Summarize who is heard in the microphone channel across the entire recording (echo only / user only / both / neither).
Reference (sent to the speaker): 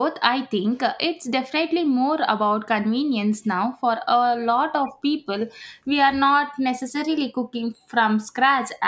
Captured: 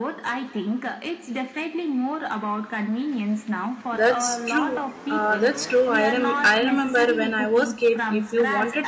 both